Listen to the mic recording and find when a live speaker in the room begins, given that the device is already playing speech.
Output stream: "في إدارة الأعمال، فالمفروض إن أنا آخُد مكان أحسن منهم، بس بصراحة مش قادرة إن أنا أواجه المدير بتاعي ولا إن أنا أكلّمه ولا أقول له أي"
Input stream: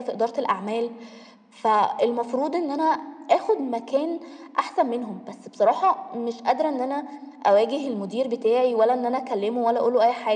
none

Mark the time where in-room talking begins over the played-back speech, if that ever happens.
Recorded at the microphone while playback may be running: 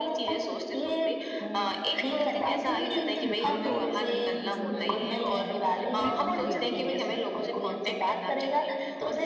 2.5 s

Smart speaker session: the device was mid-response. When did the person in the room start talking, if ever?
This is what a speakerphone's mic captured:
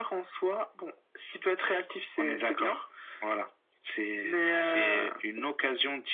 none

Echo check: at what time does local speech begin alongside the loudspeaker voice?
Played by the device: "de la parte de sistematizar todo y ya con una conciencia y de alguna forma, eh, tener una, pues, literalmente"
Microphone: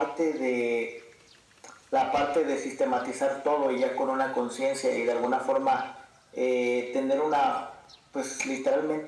none

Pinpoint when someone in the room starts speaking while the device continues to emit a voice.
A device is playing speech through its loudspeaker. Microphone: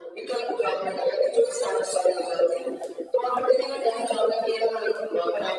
none

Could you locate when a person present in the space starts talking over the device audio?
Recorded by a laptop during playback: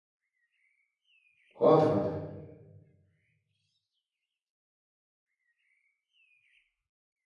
1.6 s

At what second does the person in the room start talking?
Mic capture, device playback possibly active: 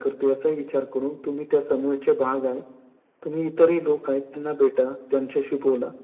none

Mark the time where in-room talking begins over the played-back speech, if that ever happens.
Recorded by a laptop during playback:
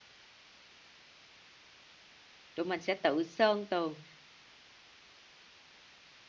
2.5 s

